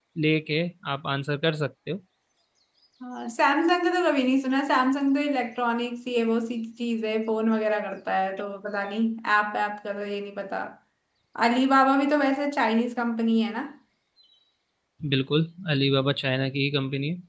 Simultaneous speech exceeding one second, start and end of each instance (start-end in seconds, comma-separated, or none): none